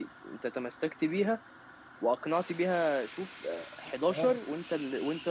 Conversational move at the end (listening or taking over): listening